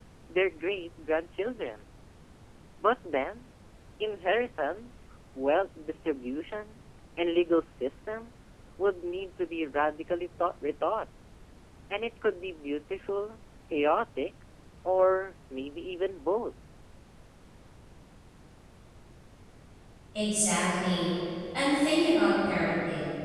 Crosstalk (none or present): none